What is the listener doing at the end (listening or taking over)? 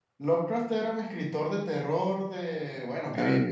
listening